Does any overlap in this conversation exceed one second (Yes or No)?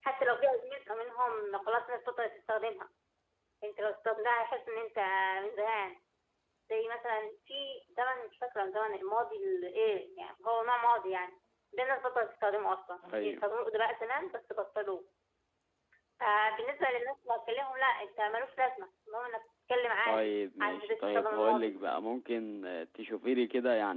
Yes